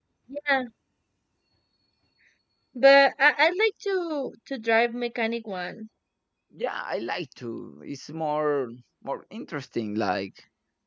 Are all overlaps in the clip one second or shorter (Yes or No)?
Yes